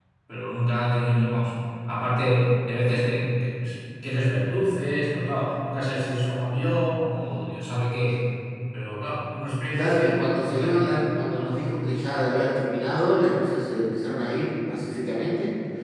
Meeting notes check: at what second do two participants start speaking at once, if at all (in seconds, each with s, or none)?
9.7 s